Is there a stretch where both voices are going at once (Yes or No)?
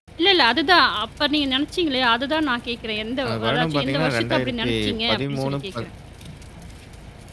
Yes